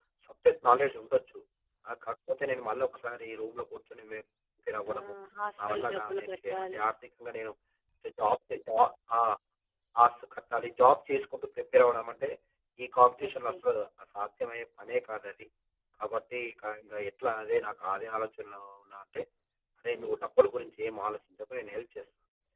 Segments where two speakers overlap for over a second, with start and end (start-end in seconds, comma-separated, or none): 5.6-6.8